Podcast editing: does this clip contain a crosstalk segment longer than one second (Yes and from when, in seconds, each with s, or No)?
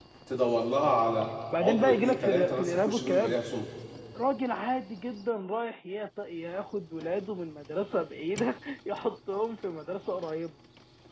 Yes, from 1.5 s